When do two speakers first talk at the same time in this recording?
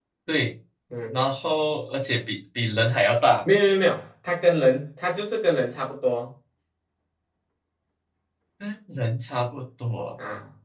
none

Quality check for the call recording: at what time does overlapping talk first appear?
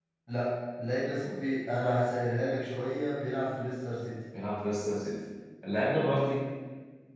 none

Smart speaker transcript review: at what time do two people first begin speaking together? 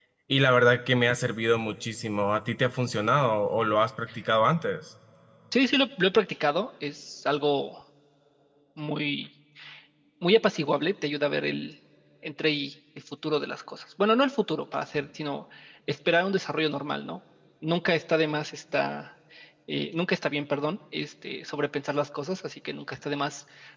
none

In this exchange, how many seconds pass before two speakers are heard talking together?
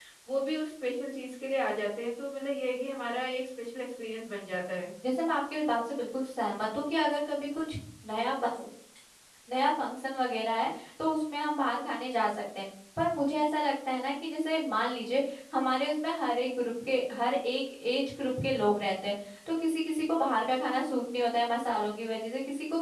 none

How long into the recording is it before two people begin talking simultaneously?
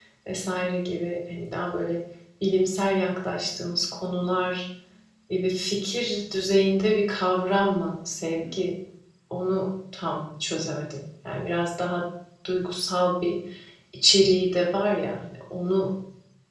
none

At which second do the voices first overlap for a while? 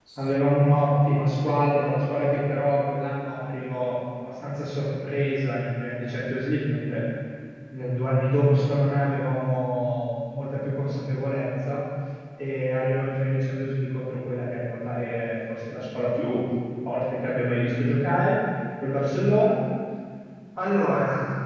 none

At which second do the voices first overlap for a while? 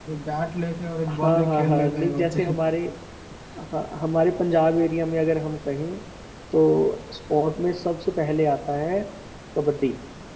1.1 s

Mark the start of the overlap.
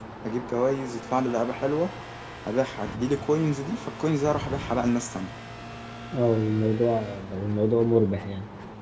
none

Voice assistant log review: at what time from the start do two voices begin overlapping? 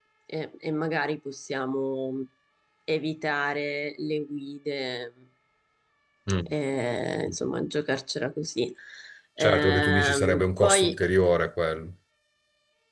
9.4 s

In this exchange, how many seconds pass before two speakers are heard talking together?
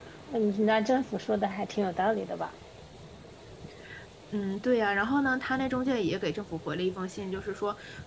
none

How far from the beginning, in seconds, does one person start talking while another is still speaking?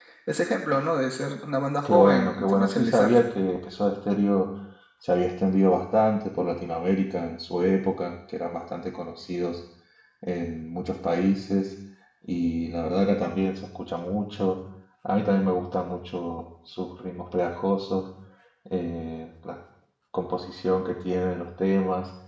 1.9 s

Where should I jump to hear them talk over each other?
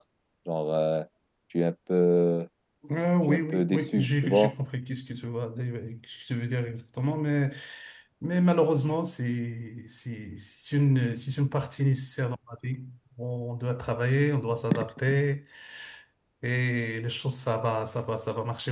3.3 s

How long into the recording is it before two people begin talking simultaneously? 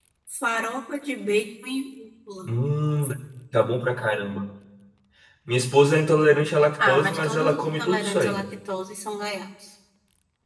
6.8 s

